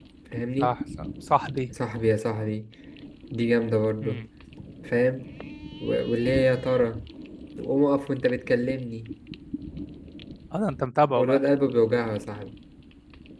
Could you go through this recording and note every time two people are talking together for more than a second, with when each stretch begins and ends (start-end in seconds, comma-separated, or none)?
none